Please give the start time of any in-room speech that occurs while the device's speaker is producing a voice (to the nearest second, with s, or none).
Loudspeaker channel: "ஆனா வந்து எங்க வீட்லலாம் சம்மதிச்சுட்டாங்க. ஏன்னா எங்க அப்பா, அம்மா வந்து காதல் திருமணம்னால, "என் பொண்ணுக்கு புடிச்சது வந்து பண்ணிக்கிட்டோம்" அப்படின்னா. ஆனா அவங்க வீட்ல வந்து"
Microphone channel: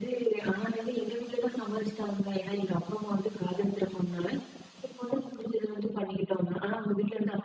none